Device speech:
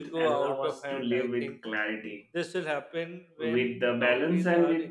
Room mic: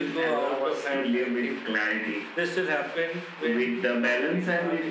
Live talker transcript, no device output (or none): none